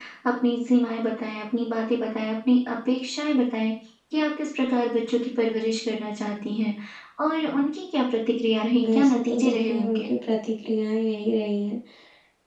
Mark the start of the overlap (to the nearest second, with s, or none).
9 s